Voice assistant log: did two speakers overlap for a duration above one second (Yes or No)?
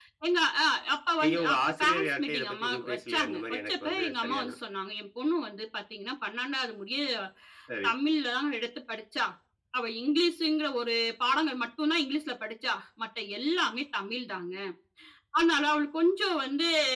Yes